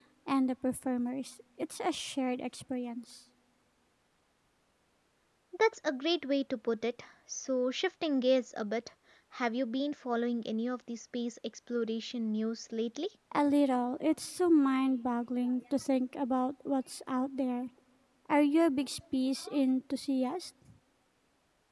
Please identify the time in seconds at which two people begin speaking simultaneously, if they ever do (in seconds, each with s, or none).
none